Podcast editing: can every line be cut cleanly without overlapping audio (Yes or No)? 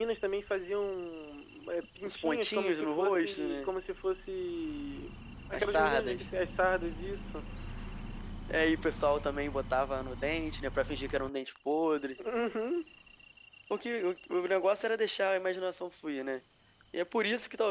No